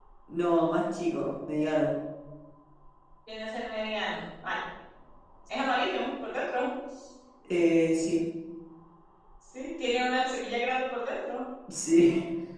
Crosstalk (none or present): none